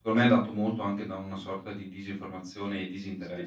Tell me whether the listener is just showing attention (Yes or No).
No